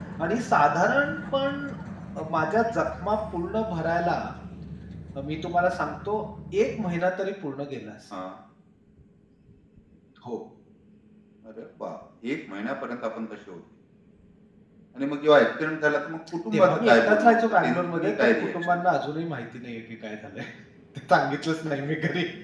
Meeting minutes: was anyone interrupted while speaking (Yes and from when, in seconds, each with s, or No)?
Yes, from 16.5 s